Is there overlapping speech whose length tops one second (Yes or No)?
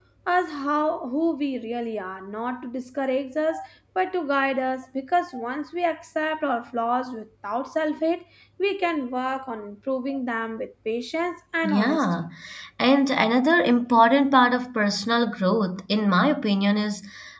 No